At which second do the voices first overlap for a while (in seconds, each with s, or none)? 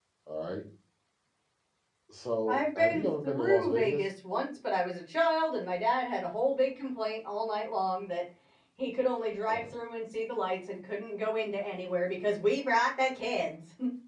2.5 s